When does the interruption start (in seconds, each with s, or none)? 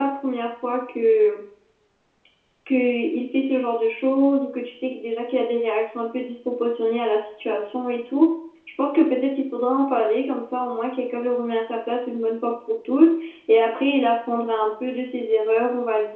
none